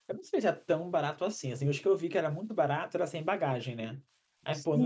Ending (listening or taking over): taking over